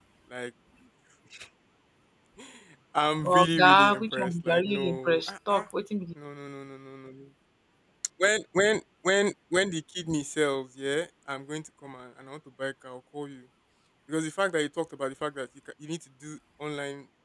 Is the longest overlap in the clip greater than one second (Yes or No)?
Yes